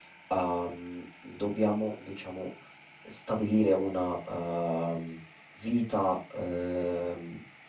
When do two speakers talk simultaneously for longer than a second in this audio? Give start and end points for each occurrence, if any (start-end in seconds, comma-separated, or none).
none